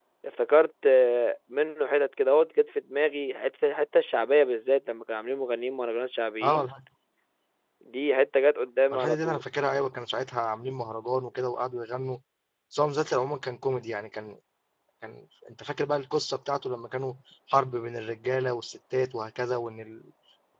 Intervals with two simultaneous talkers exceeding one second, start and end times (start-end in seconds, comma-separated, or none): none